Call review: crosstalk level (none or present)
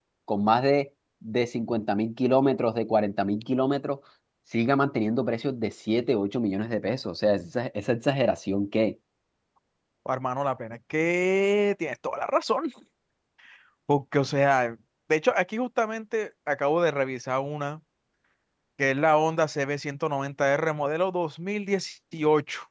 none